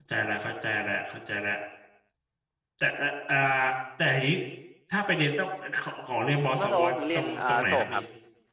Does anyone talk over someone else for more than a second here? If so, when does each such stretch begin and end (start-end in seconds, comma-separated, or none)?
6.6-8.0